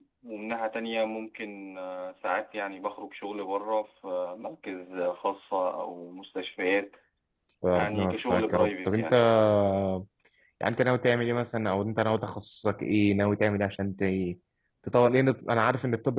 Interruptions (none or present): present